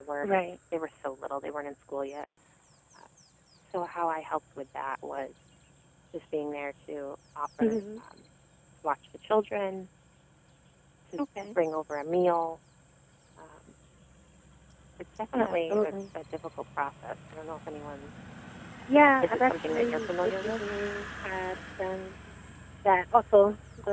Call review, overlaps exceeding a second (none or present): present